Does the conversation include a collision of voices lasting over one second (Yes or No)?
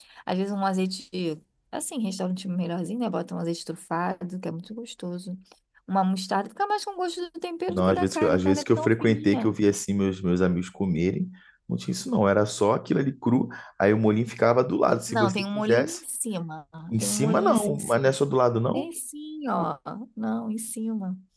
Yes